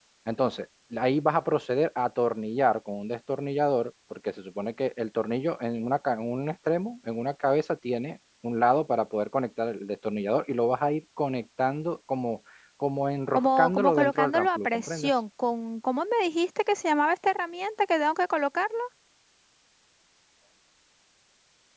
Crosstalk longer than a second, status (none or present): present